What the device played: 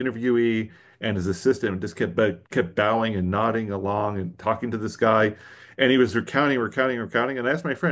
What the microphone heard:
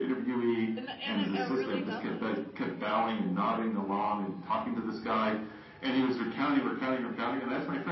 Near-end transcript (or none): And and it, it really doesn't.